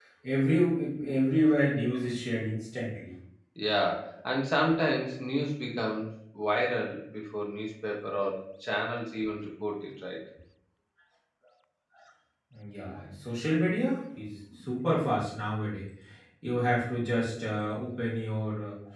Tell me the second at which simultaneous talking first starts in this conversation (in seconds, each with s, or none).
none